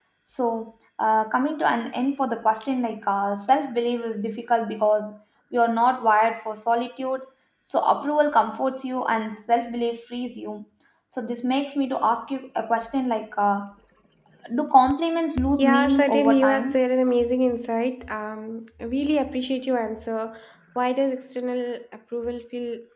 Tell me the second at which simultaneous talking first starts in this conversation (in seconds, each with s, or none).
15.4 s